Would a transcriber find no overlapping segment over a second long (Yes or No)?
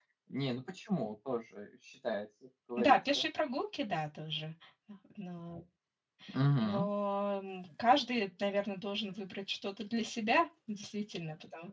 Yes